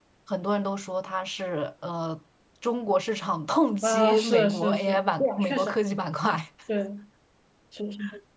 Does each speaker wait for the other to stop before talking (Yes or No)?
No